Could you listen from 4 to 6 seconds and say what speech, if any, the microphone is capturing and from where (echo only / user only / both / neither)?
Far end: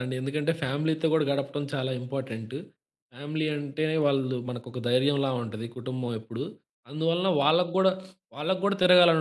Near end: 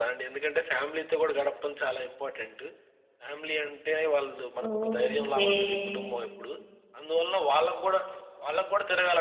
both